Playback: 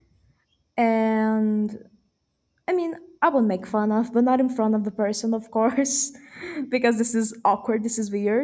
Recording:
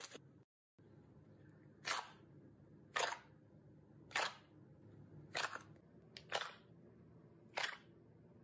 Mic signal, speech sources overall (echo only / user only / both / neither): neither